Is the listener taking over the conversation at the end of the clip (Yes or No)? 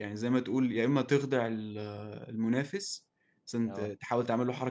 No